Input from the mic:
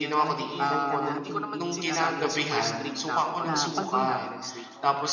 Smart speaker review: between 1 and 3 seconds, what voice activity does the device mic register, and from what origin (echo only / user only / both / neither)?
both